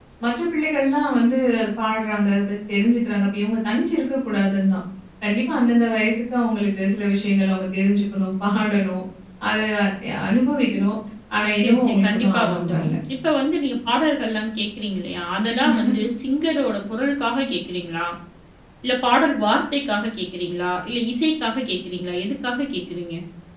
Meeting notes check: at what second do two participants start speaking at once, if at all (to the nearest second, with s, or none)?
12 s